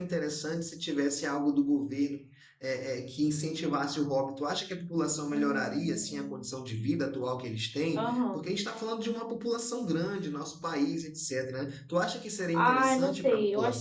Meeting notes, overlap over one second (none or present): present